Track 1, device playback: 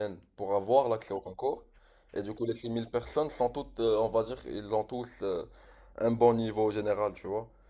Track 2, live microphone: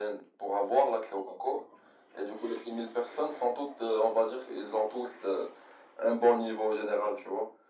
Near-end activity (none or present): none